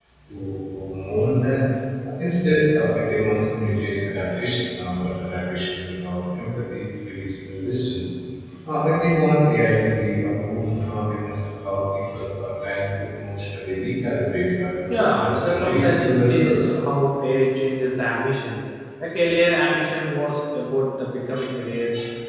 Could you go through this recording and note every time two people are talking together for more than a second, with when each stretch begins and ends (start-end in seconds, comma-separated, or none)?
14.9-16.8